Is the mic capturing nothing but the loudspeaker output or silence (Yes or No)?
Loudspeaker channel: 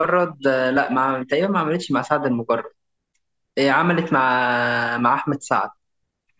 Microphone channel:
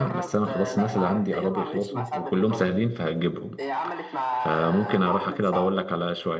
No